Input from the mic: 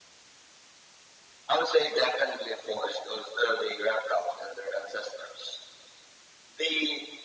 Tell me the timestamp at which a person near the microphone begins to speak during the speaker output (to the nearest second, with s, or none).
none